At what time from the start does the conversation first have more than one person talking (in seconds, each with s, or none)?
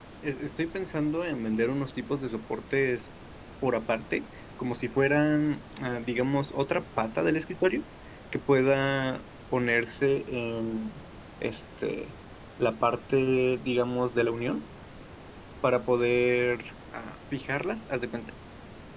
none